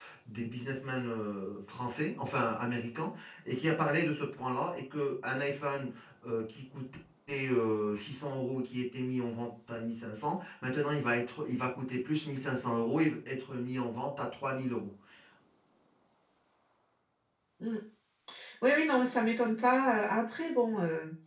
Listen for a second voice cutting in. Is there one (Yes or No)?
No